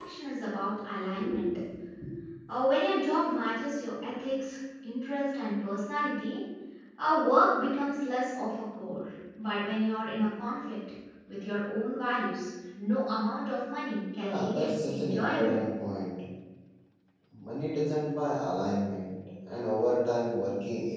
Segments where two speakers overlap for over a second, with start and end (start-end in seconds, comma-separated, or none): 14.2-15.6